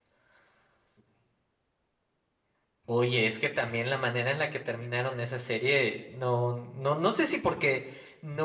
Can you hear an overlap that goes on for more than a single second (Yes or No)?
No